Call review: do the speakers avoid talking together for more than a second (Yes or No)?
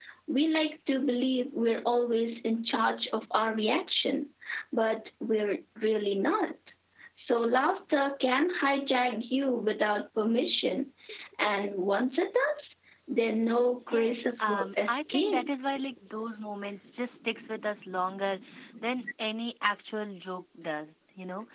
No